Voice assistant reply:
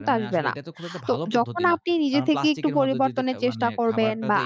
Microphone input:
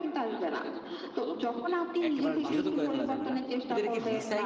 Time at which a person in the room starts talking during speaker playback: 2.1 s

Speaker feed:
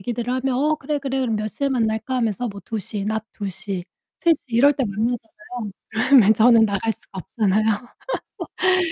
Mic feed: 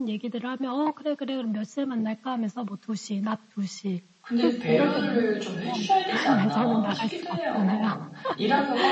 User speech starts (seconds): 4.2 s

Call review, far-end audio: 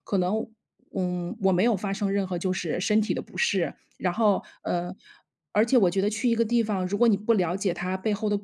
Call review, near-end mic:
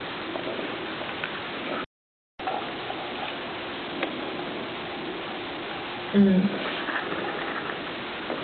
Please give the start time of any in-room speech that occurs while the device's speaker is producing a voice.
6.1 s

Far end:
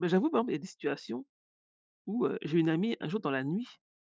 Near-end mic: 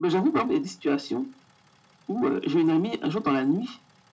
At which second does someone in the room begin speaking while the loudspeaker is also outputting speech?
none

